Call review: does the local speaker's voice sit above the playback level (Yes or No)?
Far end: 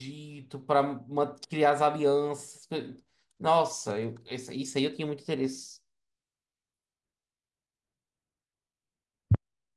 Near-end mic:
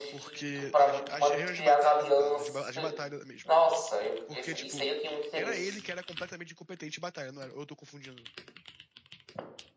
No